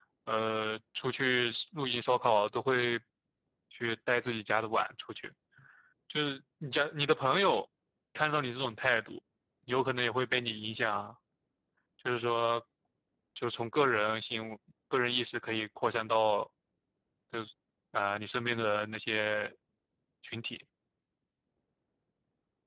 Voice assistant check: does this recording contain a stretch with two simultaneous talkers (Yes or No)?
No